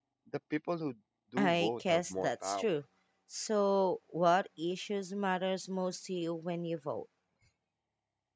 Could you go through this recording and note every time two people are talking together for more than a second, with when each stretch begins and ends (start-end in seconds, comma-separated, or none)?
1.4-2.6